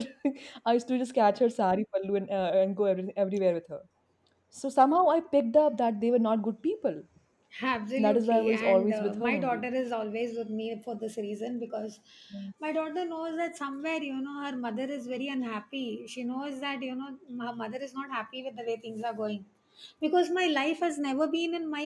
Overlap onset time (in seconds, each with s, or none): 8.0 s